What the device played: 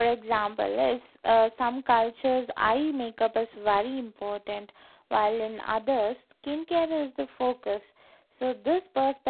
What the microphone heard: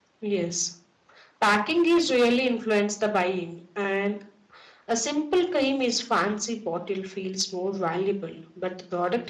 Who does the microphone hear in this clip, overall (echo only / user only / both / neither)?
user only